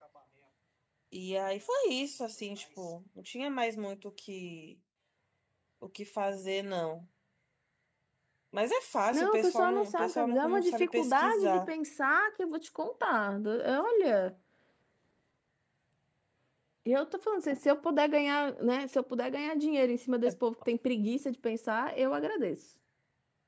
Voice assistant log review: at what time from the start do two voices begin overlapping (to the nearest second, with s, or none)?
9 s